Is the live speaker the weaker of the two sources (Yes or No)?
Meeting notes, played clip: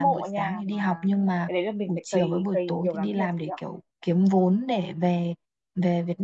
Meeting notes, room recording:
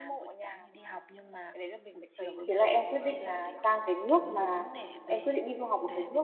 No